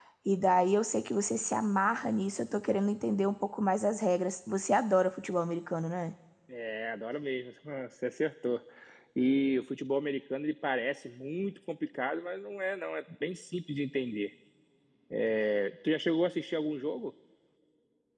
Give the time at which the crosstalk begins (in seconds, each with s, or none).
none